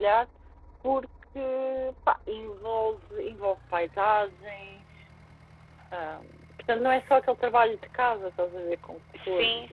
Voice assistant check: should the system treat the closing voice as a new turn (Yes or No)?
Yes